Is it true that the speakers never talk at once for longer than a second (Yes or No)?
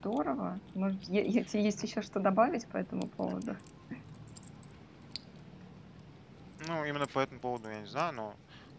Yes